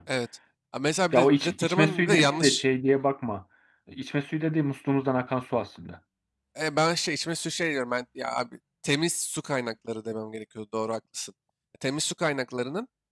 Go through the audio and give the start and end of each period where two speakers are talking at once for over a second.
1.1-2.6

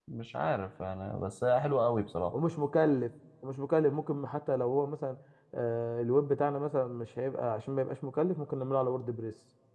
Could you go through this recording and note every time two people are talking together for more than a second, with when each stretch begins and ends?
none

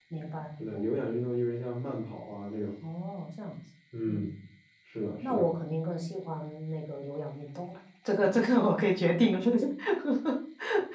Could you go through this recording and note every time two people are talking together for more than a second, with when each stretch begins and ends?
none

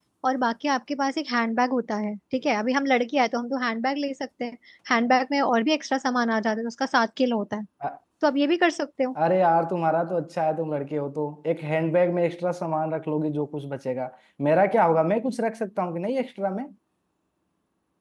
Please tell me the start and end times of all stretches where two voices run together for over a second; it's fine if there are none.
none

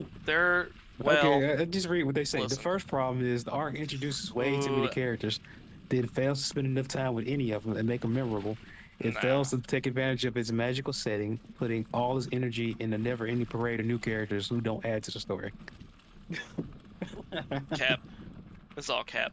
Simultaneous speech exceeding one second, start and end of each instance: none

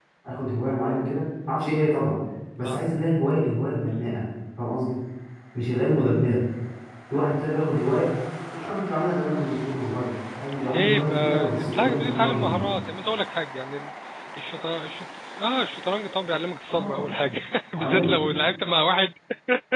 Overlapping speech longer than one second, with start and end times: 10.7-12.7

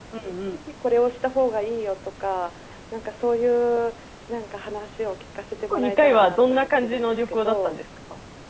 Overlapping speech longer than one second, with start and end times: 5.7-7.8

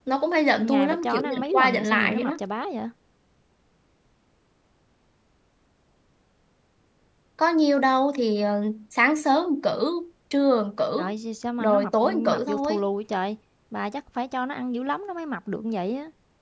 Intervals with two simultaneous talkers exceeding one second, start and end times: 0.6-2.4, 11.6-12.8

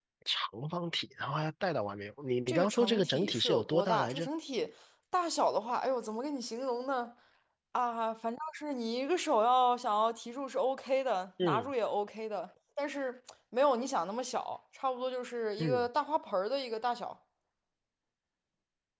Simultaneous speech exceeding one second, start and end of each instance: 2.5-4.3

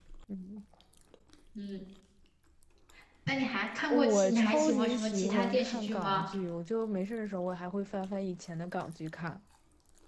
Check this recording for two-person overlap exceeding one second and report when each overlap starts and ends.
3.9-6.2

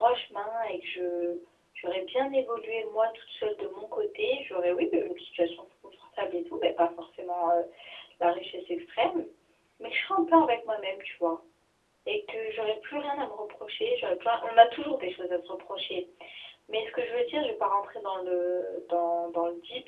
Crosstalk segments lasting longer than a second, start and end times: none

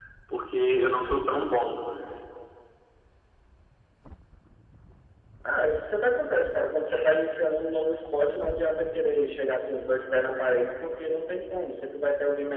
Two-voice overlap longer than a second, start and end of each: none

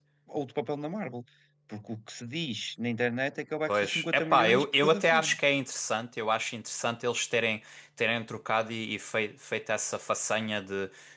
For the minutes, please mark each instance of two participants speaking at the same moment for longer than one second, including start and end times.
3.7-5.4

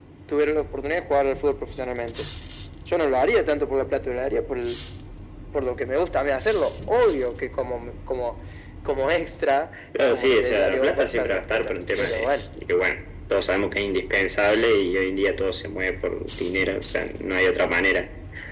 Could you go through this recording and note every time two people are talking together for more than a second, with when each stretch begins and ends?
10.0-12.3

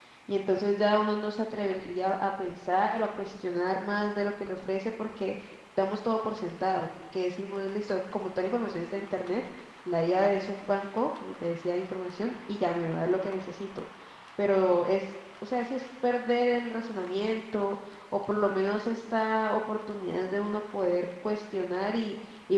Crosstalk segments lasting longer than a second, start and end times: none

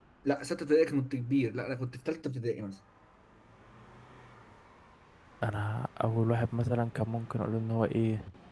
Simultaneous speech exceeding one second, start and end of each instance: none

